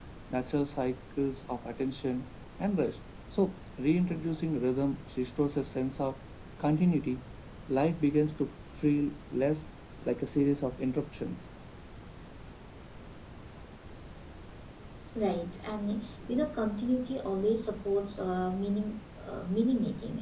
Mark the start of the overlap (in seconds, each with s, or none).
none